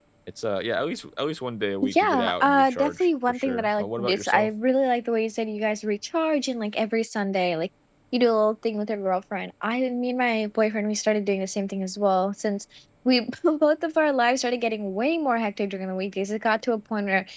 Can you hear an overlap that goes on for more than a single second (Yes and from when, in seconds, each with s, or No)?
Yes, from 1.8 s